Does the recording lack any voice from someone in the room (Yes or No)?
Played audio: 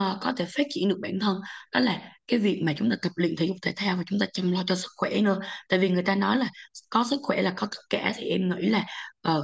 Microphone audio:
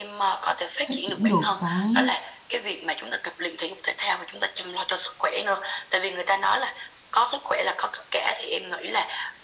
No